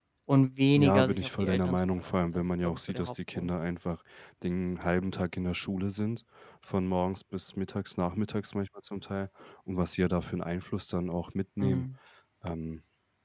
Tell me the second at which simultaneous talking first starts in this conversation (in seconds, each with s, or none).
0.8 s